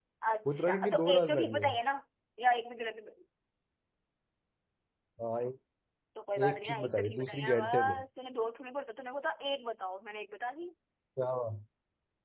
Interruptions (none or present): present